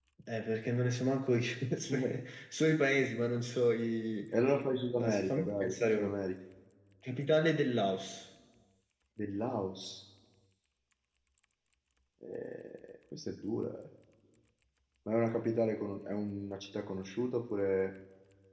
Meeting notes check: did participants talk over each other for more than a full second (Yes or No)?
Yes